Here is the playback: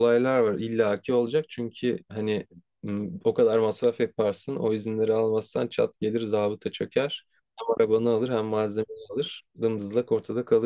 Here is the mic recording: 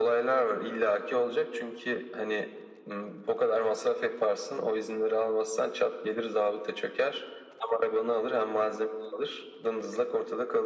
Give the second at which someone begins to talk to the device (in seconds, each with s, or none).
none